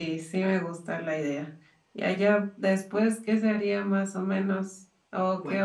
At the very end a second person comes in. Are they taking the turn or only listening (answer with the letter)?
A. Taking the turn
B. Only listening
B